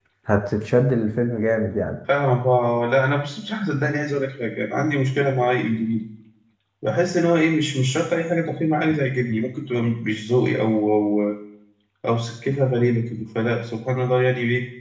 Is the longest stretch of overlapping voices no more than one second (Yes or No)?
Yes